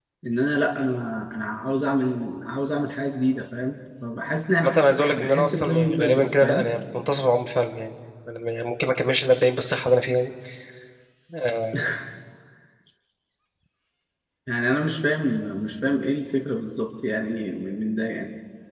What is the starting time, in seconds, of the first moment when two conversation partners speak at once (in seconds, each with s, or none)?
4.5 s